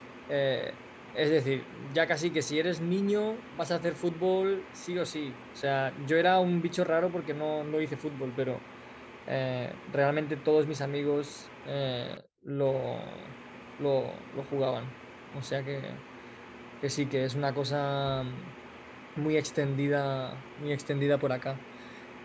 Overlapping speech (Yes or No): No